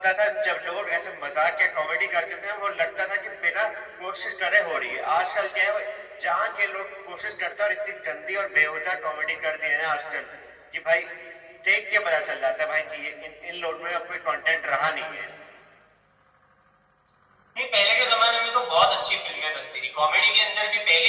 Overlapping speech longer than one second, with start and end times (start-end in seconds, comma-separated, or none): none